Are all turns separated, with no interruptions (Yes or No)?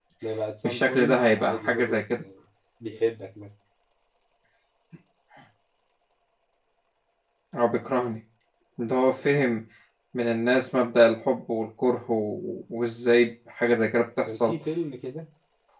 No